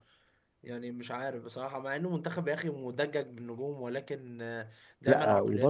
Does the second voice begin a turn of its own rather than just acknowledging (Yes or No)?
No